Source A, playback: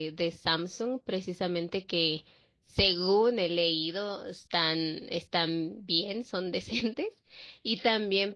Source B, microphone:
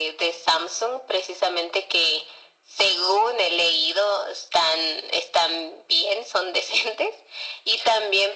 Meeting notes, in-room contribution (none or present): none